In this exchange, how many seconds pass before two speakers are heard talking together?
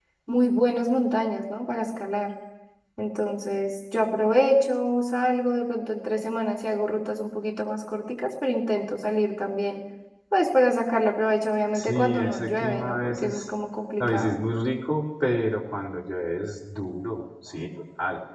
11.8 s

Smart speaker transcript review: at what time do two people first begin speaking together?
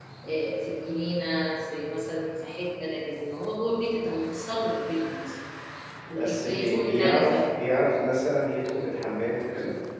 6.2 s

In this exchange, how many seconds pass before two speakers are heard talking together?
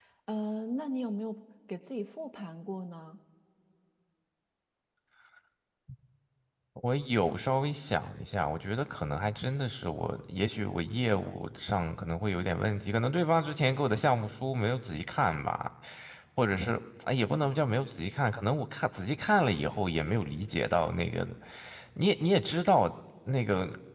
none

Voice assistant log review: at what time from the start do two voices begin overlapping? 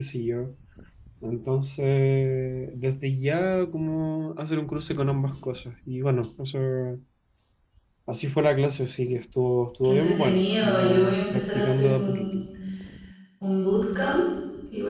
9.8 s

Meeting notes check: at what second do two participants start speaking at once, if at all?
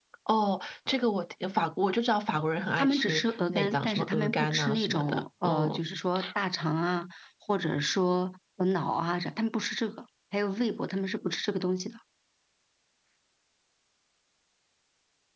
2.8 s

